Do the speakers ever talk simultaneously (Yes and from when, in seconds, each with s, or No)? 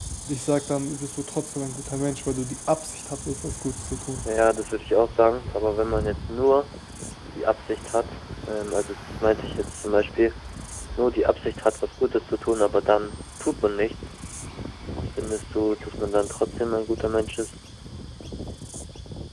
No